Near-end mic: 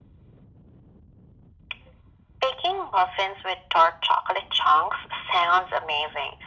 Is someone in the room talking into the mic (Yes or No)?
No